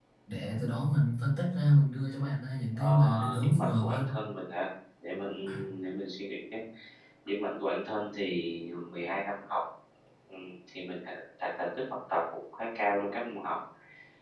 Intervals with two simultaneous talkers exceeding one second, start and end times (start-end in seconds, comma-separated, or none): 2.8-4.1